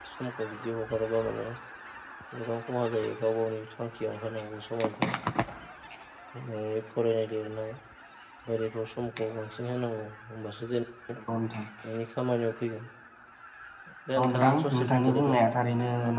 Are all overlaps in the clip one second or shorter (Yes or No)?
No